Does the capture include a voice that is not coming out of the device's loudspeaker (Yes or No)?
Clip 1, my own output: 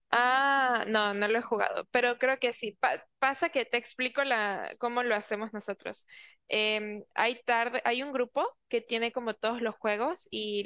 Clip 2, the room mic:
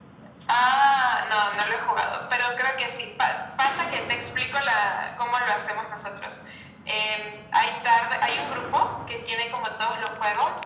No